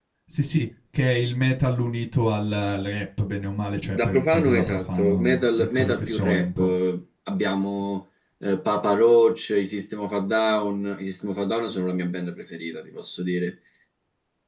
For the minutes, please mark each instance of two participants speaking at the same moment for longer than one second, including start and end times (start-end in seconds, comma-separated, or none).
4.0-6.7